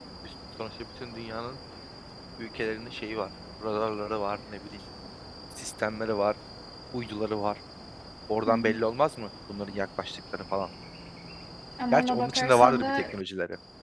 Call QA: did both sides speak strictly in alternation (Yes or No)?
No